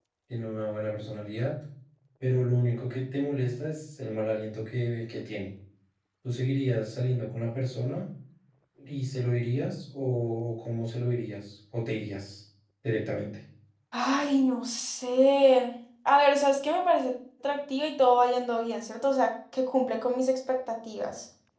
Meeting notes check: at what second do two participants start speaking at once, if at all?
none

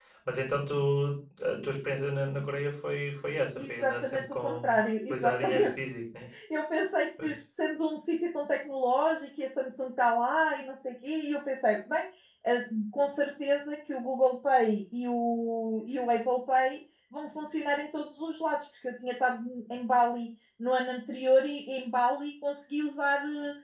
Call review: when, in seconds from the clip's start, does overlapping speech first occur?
3.6 s

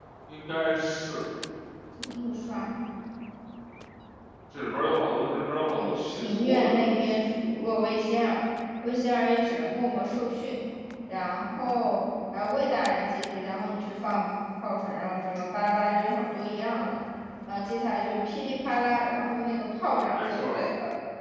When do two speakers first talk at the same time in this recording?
5.7 s

